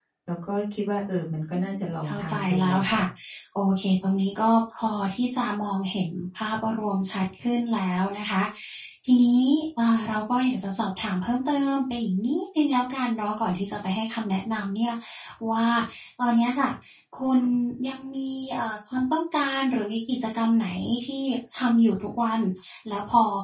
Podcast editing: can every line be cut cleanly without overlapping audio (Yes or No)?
No